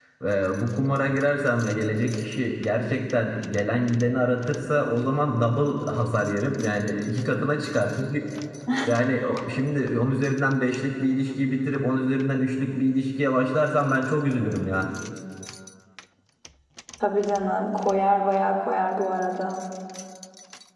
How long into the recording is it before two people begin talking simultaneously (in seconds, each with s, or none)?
none